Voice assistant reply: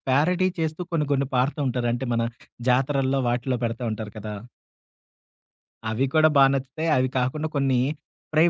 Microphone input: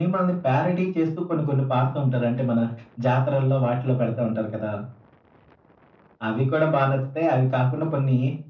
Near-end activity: none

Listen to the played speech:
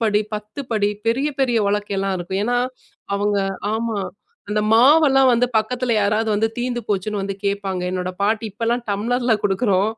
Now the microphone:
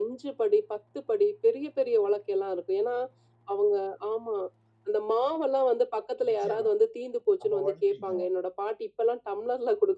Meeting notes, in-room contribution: present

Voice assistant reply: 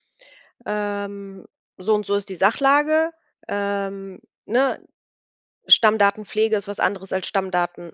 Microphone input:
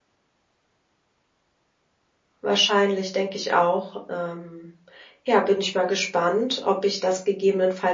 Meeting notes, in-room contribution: present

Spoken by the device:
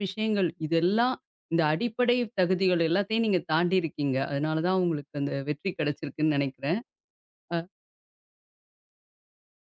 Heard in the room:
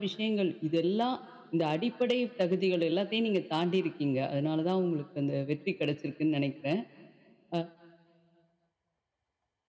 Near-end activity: none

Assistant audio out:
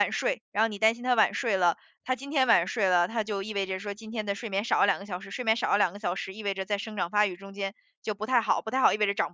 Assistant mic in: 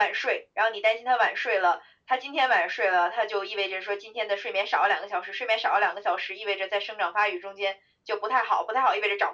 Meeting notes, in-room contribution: none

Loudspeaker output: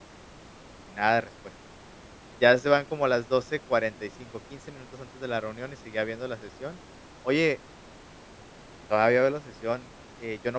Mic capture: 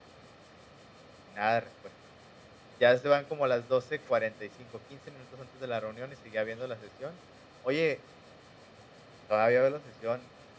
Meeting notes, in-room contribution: none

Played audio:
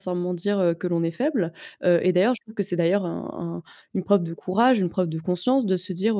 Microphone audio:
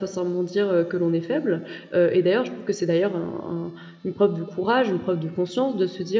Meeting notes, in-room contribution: none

